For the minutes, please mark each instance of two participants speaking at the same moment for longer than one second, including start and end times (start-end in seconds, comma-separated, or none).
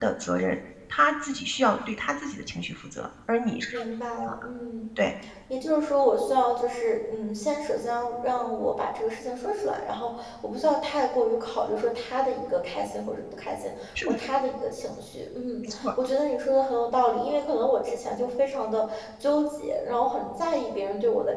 none